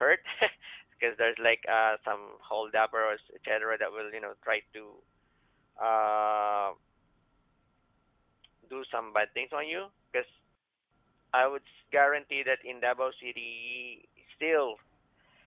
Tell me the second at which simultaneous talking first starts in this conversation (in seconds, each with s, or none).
none